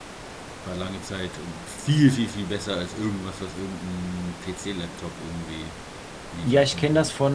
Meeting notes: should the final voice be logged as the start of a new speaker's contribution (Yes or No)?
Yes